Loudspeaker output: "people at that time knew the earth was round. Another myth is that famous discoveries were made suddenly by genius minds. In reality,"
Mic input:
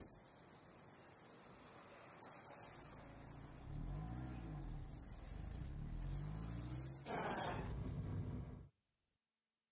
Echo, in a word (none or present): none